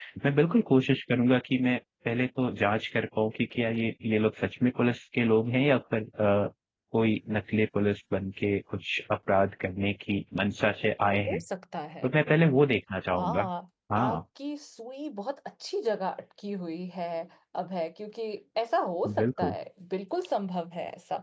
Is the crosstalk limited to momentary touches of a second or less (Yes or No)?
Yes